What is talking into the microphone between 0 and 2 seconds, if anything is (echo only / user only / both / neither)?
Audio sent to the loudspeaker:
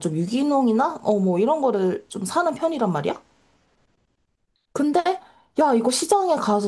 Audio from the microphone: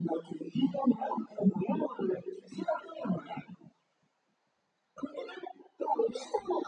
echo only